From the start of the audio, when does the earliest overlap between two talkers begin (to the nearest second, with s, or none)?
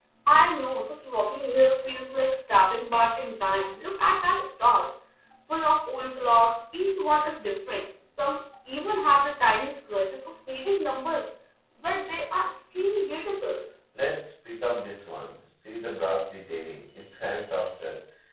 none